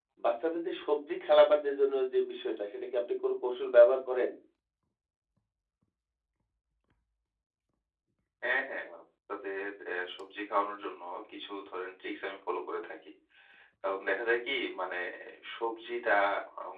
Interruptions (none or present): none